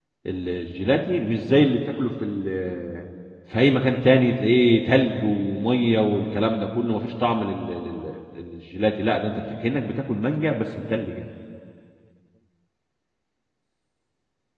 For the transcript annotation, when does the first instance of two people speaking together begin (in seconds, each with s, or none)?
none